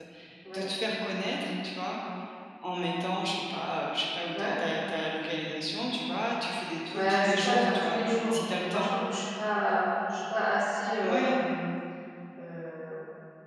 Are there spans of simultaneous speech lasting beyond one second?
Yes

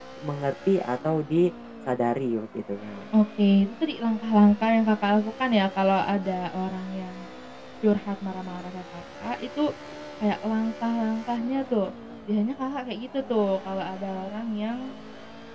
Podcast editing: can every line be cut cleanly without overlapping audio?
Yes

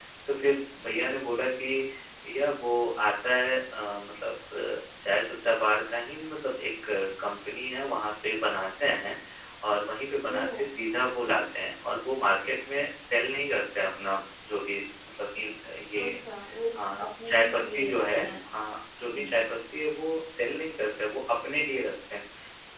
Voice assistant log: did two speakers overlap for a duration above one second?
Yes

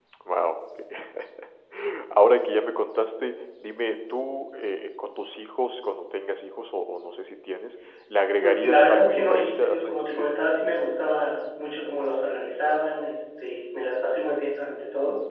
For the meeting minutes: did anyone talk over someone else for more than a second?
Yes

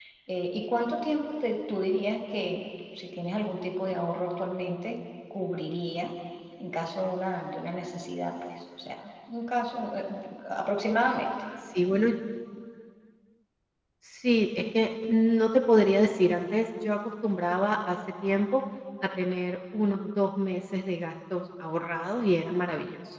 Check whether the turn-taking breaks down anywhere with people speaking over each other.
No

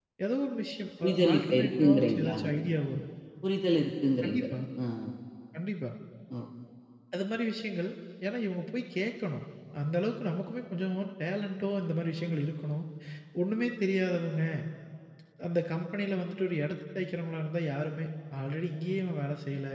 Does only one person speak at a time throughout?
No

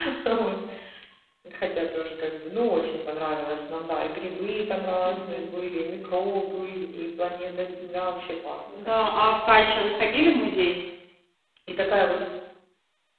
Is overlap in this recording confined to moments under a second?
Yes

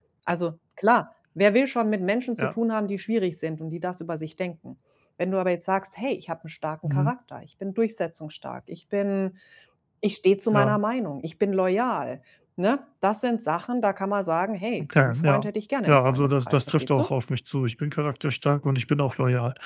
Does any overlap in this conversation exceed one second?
Yes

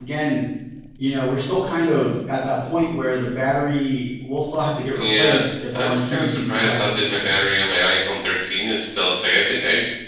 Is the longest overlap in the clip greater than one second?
Yes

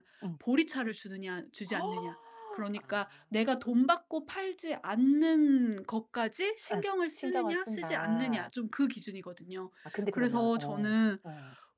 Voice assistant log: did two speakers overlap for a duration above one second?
Yes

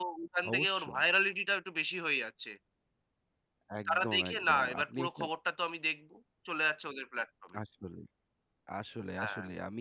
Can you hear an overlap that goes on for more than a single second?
Yes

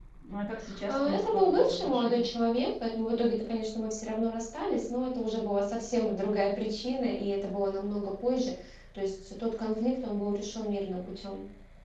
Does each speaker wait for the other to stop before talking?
No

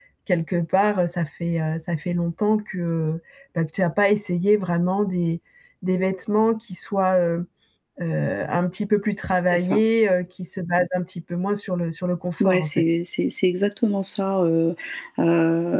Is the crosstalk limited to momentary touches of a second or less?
Yes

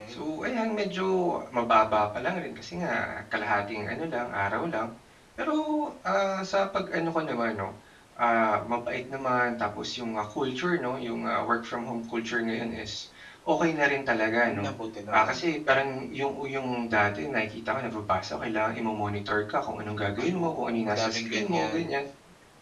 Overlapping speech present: Yes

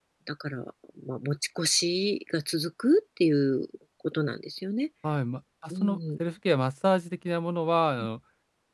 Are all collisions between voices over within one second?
Yes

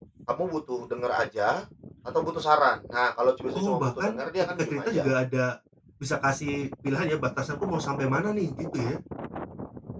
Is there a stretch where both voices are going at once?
Yes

